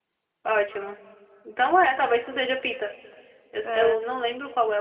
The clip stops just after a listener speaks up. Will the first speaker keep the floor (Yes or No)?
Yes